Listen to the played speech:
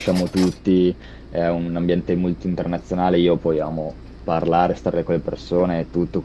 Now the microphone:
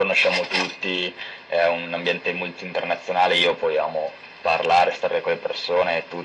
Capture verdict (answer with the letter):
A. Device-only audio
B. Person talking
A